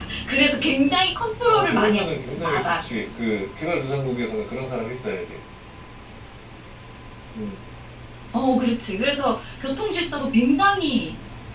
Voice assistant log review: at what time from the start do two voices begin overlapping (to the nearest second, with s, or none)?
1 s